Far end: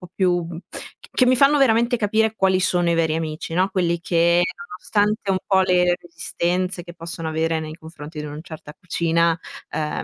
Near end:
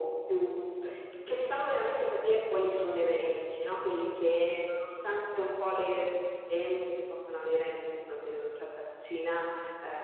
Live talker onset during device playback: none

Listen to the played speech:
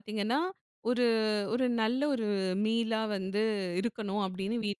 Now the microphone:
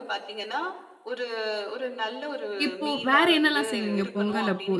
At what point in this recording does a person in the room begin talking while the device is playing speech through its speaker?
2.6 s

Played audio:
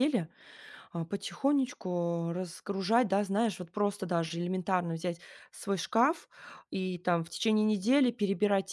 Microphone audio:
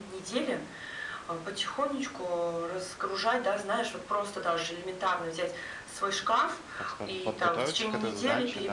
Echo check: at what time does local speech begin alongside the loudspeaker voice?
6.7 s

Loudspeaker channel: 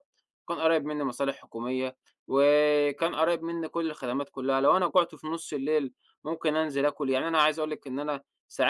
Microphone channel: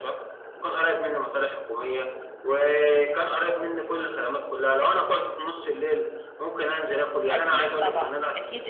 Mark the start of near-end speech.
7.3 s

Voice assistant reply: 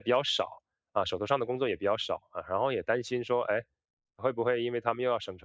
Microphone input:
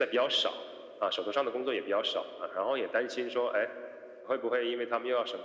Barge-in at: none

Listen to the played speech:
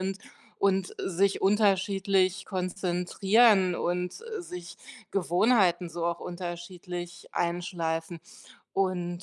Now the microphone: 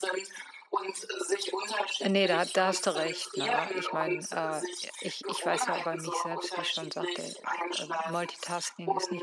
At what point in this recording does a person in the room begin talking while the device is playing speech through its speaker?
2.0 s

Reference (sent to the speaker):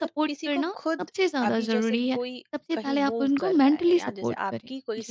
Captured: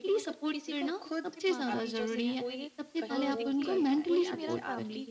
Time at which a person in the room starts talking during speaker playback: 0.7 s

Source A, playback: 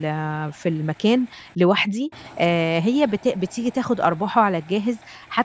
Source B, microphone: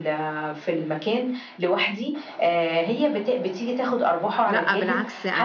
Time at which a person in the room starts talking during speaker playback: 4.4 s

